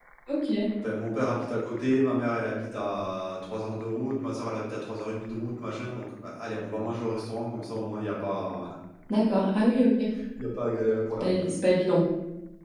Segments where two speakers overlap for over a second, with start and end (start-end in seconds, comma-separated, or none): none